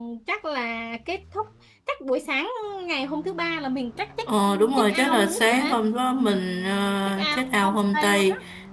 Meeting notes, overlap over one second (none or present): present